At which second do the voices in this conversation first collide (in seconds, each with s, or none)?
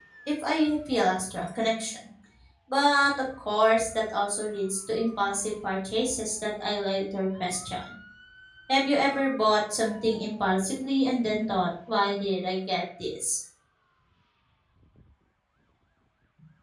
none